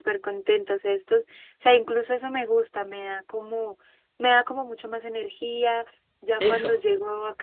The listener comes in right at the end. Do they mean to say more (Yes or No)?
No